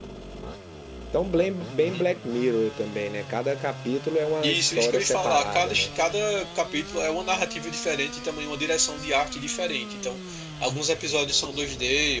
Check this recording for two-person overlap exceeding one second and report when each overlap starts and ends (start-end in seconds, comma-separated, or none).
4.4-5.9